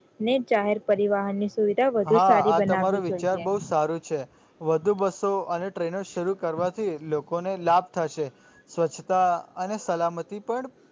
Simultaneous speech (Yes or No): Yes